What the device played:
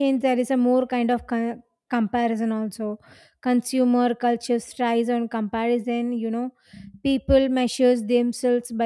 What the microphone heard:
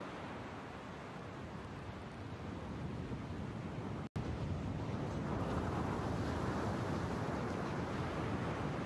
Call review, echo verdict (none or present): none